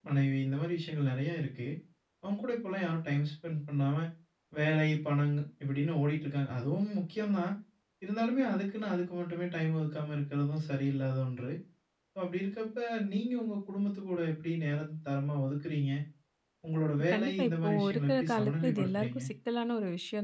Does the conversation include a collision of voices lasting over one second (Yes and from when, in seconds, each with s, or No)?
Yes, from 17.1 s